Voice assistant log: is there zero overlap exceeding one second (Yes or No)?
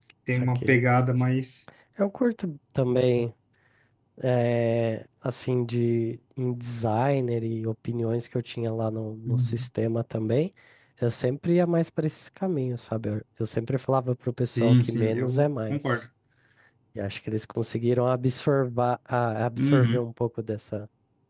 No